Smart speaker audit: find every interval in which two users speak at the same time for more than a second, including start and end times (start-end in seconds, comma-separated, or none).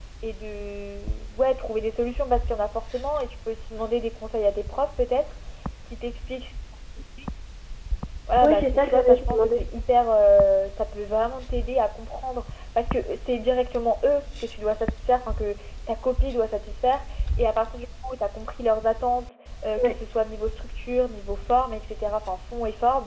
8.4-9.7